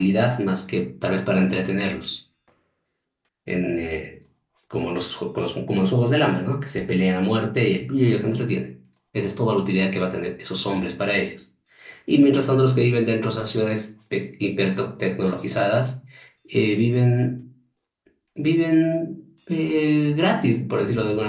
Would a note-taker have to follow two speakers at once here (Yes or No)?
No